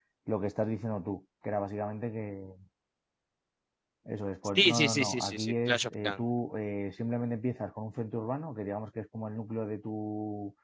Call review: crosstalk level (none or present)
present